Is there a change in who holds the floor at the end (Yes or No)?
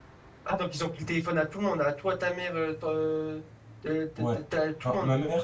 Yes